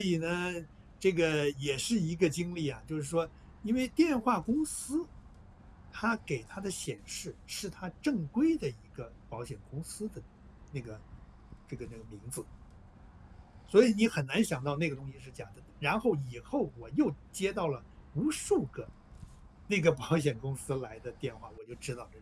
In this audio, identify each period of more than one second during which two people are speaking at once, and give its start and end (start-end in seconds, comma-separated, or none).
none